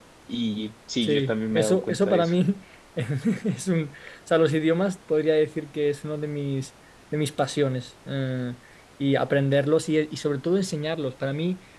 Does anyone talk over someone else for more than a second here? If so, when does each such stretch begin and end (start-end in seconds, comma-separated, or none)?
1.0-2.4